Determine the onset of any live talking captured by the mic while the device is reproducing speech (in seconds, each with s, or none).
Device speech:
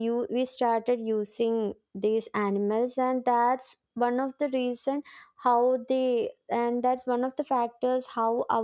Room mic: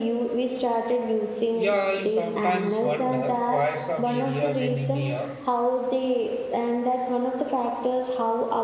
1.5 s